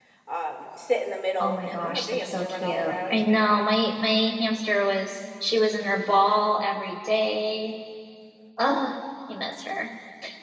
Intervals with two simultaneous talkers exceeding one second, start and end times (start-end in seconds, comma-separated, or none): 1.4-3.2